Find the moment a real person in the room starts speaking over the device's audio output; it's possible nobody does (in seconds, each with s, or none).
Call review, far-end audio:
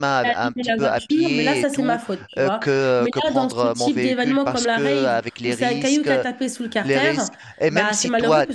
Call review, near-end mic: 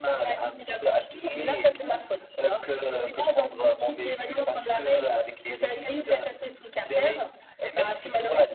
none